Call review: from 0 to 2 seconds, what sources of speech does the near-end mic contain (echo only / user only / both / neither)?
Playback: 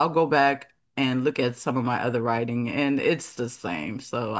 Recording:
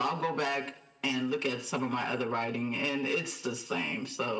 echo only